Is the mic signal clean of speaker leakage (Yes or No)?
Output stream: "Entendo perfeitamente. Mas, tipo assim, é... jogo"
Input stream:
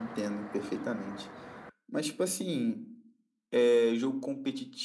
No